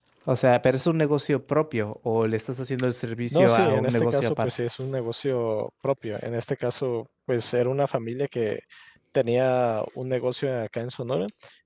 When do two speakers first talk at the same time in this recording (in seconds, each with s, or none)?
3.2 s